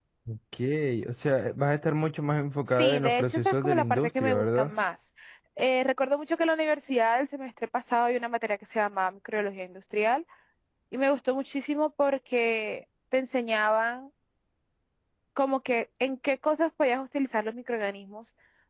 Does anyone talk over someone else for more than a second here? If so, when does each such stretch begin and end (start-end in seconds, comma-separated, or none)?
2.8-4.7